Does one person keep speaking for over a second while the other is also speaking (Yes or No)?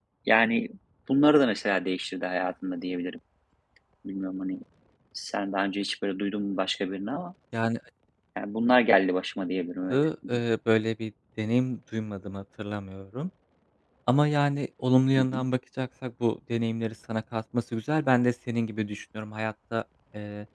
No